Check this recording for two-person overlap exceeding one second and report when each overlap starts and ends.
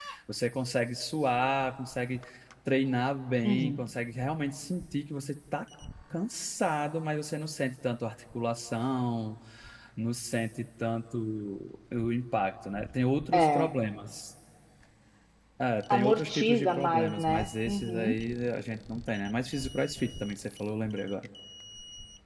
15.9-18.2

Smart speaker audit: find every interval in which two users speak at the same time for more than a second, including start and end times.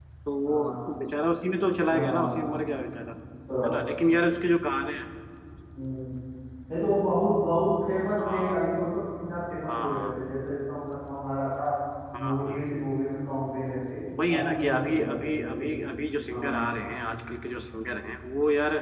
14.3-15.7

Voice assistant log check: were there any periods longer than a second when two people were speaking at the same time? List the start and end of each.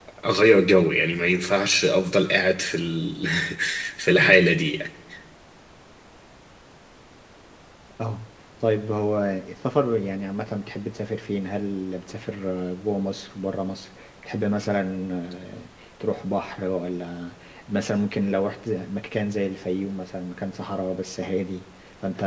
none

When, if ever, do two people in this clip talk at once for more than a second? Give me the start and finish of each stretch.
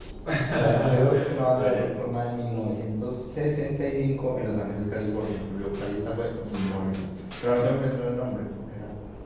0.6-1.9

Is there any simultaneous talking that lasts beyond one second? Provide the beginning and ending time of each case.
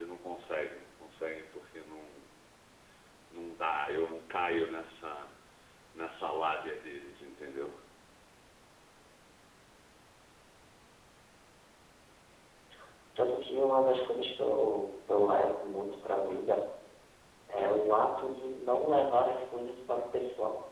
none

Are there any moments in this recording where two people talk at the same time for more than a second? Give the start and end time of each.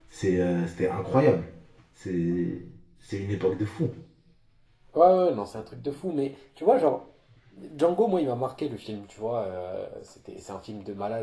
none

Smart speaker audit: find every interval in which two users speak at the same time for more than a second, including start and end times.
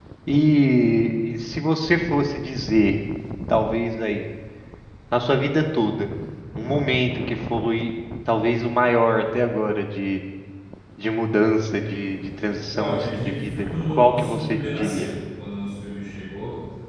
12.7-15.1

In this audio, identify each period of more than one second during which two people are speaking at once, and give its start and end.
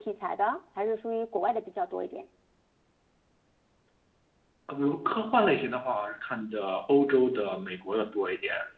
none

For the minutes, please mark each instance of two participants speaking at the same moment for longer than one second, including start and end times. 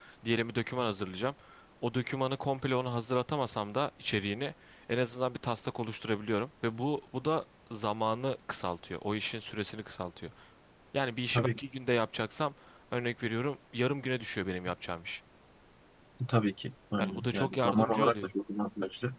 17.0-18.3

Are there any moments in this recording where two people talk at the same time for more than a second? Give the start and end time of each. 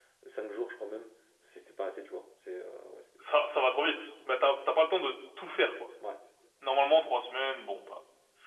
none

